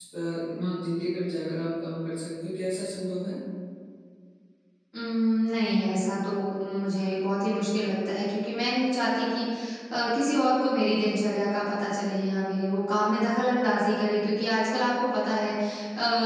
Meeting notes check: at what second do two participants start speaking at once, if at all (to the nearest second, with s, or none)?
none